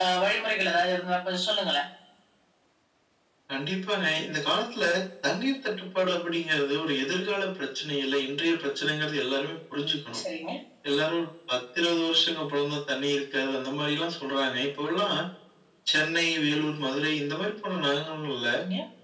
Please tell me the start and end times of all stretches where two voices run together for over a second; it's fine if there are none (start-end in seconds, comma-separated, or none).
none